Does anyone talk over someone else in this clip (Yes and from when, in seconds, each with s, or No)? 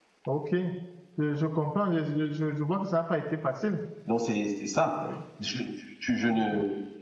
No